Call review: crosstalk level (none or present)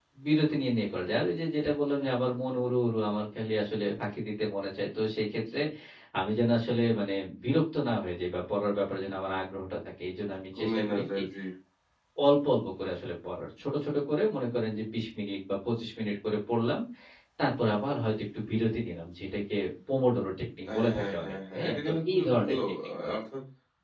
present